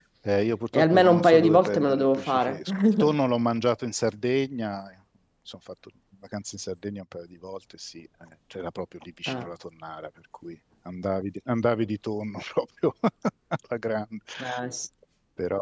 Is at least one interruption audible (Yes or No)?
Yes